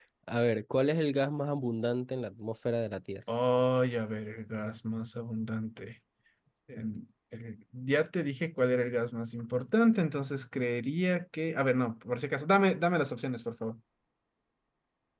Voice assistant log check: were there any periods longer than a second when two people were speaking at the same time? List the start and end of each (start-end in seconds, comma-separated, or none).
none